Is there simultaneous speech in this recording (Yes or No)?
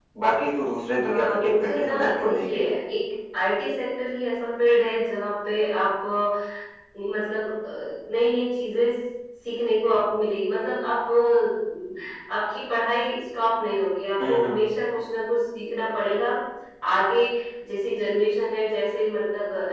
Yes